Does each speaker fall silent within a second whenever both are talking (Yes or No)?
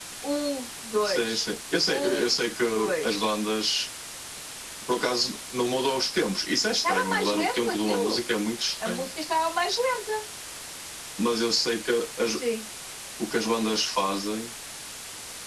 No